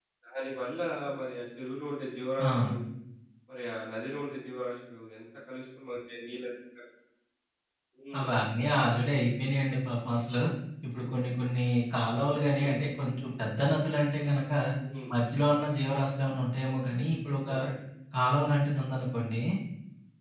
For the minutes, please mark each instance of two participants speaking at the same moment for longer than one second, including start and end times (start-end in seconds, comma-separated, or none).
none